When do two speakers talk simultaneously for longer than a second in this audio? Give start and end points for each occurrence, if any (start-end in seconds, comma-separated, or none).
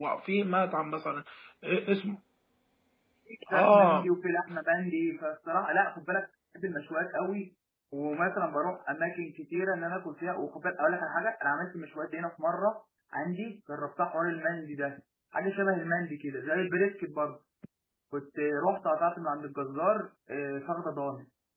none